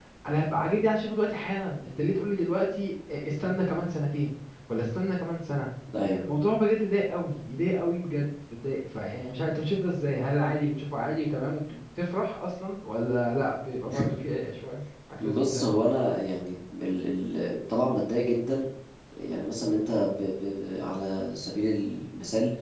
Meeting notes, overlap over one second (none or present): none